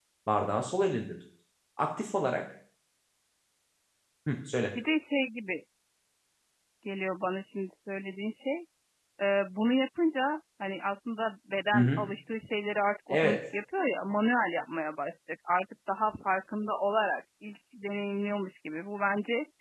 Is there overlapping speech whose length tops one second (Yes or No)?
No